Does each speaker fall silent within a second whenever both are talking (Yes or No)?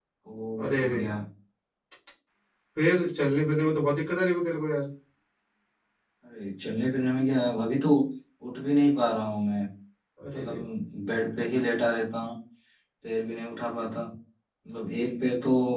Yes